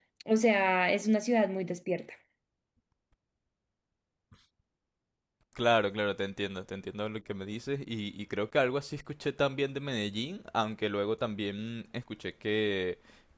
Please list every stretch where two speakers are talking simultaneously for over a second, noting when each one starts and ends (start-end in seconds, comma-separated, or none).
none